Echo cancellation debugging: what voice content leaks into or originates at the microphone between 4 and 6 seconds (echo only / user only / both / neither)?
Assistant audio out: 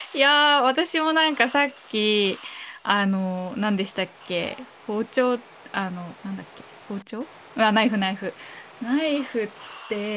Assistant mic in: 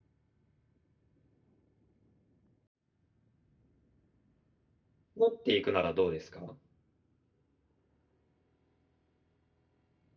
user only